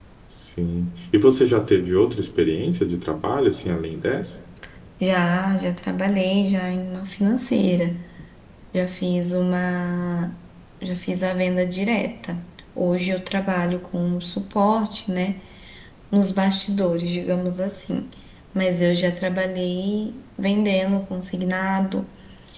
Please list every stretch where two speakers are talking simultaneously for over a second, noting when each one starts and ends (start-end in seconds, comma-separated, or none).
none